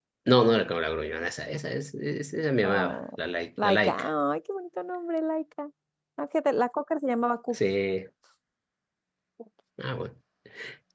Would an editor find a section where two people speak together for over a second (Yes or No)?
No